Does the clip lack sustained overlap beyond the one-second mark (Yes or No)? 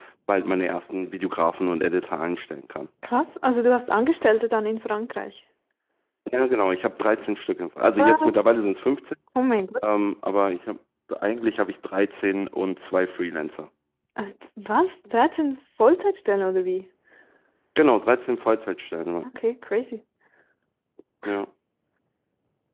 Yes